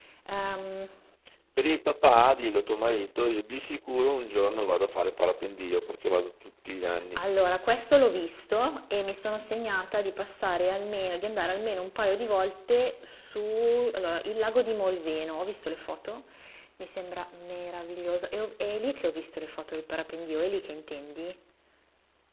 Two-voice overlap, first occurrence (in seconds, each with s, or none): none